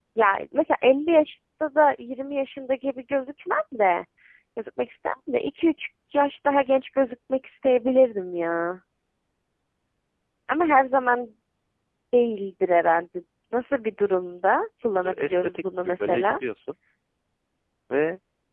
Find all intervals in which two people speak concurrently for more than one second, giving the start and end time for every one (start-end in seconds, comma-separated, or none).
15.0-16.4